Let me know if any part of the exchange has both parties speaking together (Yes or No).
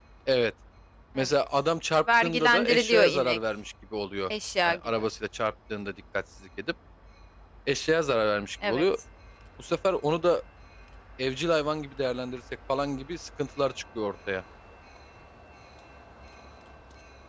Yes